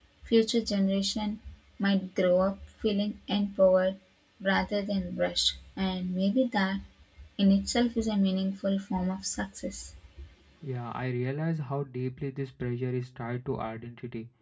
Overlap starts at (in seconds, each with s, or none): none